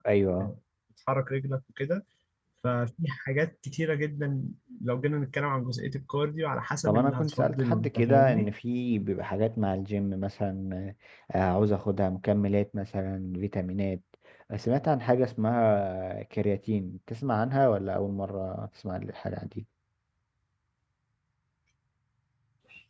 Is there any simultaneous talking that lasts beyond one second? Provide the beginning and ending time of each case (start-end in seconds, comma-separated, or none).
6.8-8.5